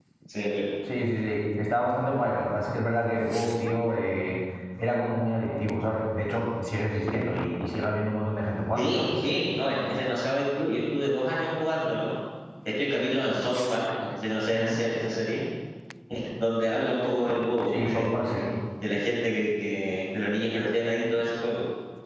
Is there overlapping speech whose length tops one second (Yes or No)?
No